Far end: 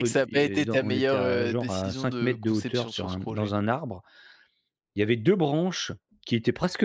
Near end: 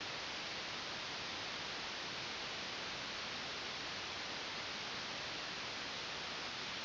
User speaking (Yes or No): No